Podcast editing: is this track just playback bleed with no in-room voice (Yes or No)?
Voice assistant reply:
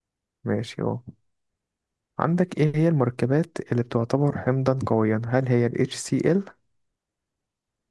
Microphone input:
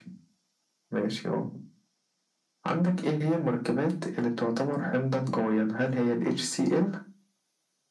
Yes